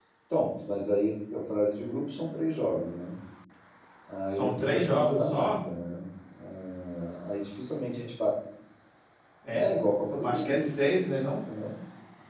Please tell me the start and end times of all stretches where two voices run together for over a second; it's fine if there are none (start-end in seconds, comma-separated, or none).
4.3-5.5